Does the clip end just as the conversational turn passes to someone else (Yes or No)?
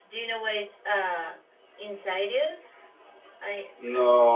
Yes